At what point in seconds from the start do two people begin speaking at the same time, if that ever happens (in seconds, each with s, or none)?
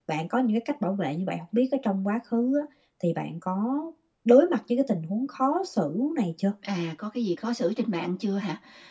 none